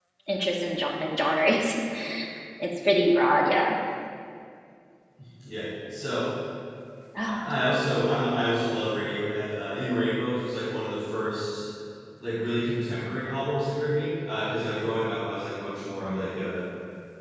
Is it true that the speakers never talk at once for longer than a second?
Yes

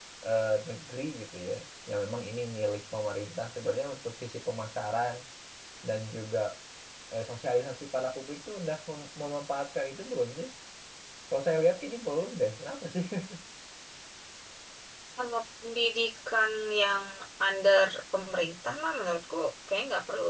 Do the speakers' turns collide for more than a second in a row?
No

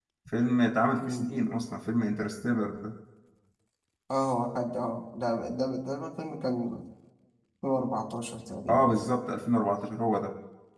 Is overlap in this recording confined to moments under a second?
Yes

